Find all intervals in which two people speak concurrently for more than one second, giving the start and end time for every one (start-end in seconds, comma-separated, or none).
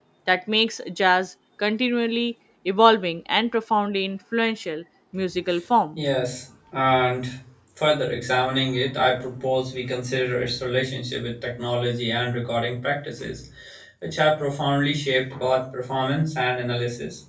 none